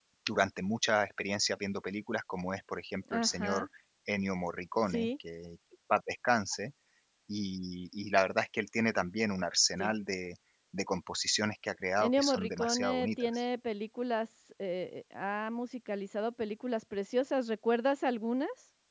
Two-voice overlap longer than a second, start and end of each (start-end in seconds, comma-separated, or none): 12.0-13.4